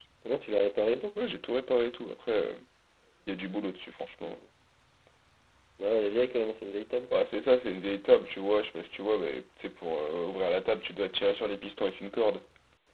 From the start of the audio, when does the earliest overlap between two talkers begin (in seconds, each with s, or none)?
none